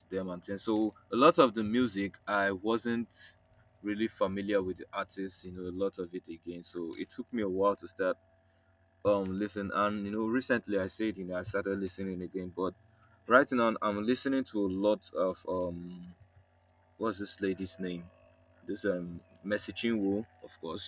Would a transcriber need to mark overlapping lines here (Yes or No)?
No